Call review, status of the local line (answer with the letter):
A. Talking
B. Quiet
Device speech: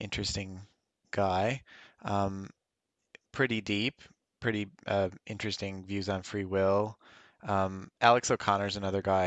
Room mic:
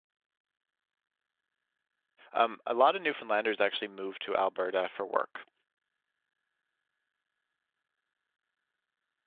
A